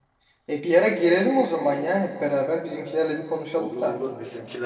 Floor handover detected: Yes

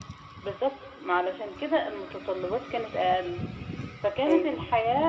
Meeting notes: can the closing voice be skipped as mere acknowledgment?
Yes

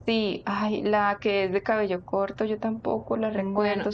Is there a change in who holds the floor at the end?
No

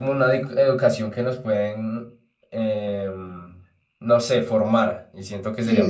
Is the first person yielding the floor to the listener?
Yes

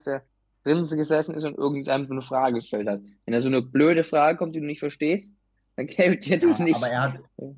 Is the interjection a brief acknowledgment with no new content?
No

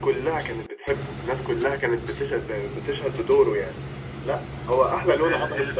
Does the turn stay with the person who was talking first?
No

